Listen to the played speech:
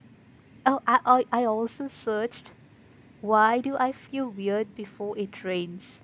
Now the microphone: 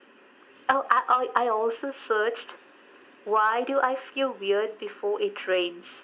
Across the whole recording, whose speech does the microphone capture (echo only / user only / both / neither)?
echo only